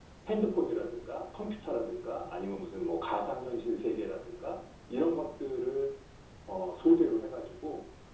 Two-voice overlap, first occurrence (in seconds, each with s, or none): none